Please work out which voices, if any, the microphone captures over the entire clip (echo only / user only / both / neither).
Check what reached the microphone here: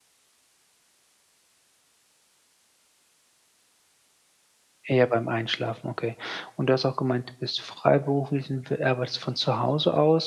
user only